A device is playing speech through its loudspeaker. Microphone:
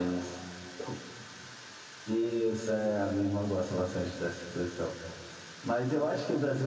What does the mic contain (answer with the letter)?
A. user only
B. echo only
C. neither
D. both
B